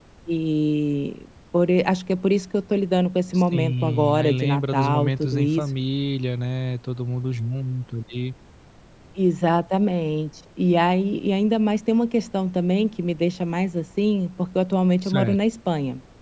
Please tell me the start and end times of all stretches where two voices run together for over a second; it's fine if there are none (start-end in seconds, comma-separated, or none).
3.4-5.6